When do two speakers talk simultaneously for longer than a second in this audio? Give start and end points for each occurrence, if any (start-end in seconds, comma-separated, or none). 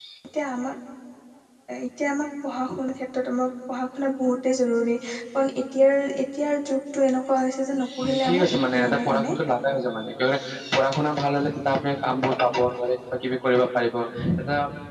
8.0-9.3